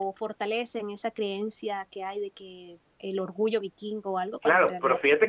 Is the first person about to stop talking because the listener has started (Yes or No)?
Yes